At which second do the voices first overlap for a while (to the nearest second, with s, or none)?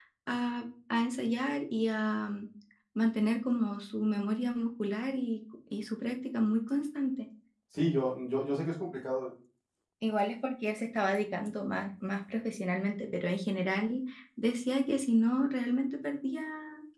none